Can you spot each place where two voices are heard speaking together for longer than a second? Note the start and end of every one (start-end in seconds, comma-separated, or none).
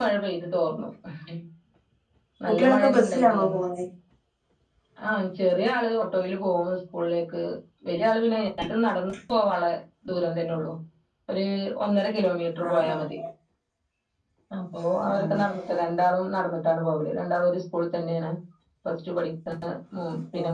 2.5-3.7